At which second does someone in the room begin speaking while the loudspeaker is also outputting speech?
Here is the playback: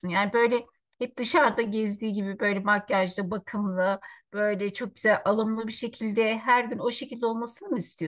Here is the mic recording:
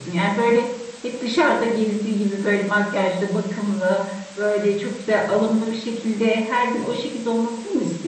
none

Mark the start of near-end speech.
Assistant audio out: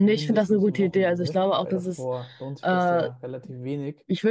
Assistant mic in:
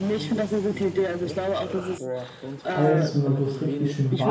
2.6 s

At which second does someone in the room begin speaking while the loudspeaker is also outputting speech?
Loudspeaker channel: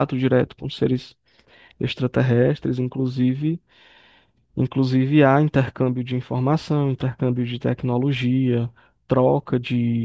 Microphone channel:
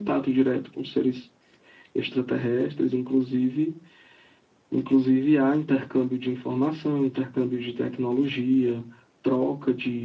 none

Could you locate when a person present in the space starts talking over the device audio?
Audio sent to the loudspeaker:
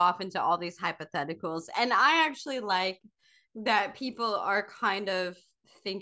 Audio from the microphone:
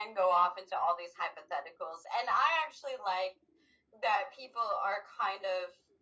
none

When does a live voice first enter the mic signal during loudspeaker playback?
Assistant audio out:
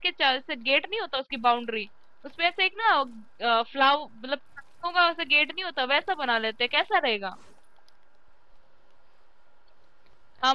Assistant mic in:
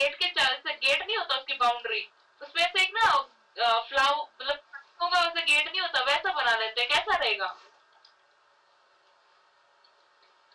none

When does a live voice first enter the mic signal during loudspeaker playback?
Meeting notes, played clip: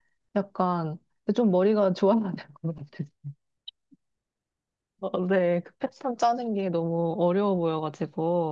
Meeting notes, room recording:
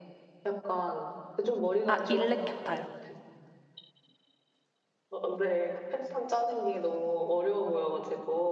1.9 s

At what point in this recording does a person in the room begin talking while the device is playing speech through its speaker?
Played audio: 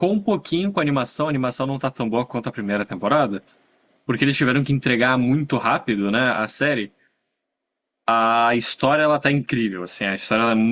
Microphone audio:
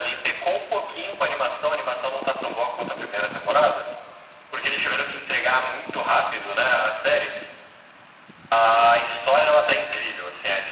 none

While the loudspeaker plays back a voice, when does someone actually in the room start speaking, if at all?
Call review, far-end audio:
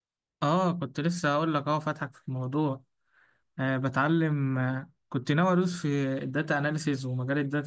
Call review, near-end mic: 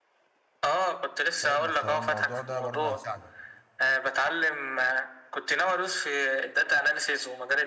1.4 s

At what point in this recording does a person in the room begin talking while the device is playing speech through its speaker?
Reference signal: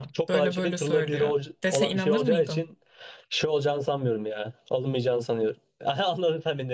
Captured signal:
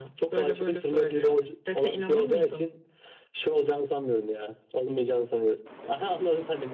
none

